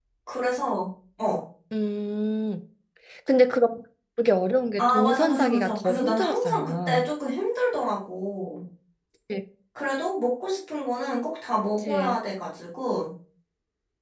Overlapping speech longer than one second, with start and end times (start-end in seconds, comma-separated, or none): 4.8-7.0